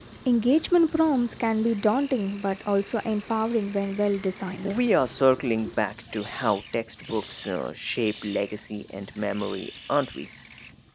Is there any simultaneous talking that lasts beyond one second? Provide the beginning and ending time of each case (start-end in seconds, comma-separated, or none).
none